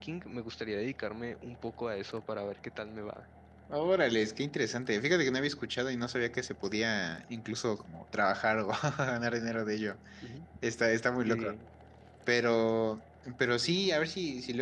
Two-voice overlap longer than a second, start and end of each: none

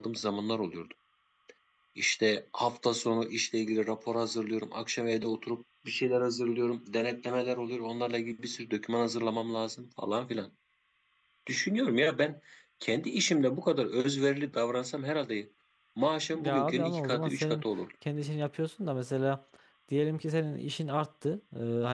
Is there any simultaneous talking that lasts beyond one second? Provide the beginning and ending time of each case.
16.3-17.6

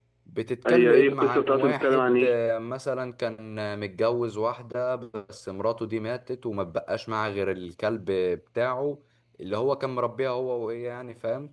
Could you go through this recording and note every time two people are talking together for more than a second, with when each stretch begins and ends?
0.7-2.3

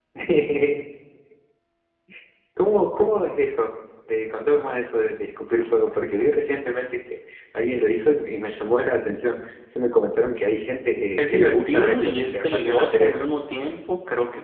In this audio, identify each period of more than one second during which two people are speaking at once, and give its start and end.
11.2-13.2

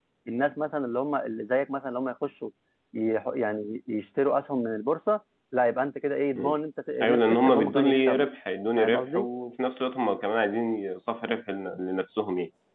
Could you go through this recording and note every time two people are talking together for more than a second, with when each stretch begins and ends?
7.0-8.3

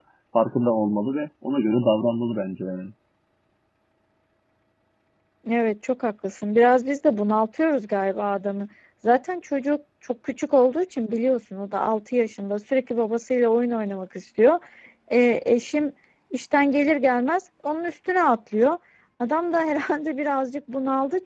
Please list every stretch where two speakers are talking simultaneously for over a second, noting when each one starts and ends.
none

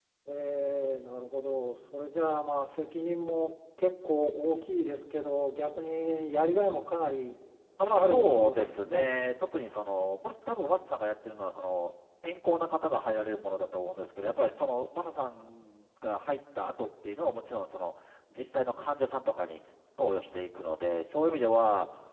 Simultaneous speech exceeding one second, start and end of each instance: 7.9-9.2

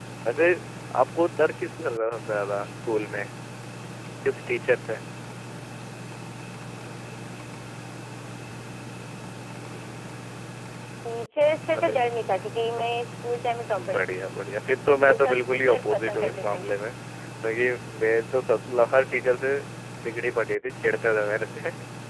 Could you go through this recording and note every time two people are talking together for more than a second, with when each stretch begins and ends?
15.1-16.6

